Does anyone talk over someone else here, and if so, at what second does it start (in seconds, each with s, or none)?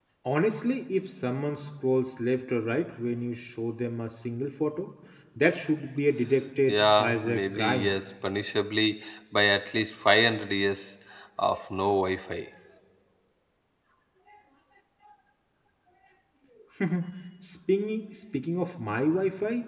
6.7 s